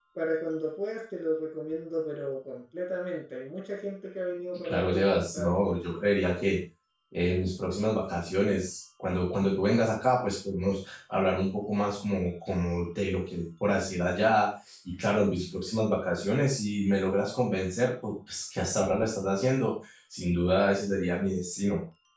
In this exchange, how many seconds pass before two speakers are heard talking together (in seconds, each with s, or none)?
4.6 s